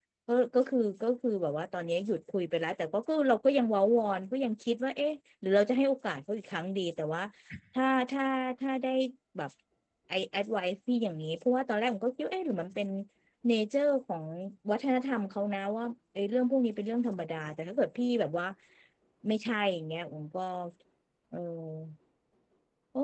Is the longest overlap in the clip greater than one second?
No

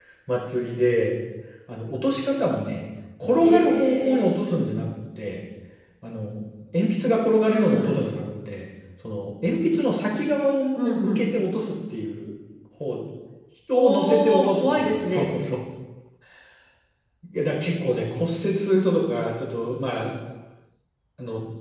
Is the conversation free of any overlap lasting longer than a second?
No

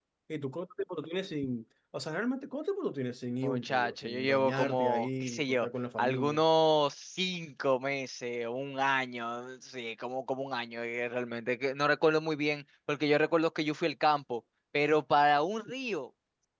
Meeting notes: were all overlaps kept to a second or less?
No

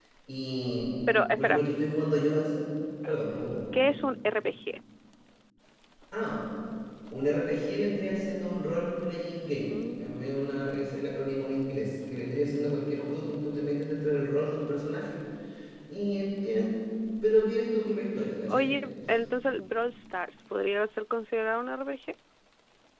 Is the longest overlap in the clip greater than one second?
No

